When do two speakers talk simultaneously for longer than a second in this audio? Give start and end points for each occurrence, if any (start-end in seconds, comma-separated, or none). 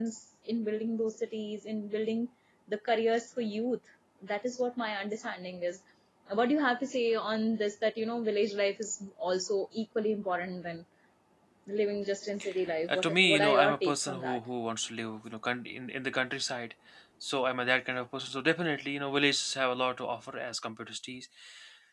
12.9-14.4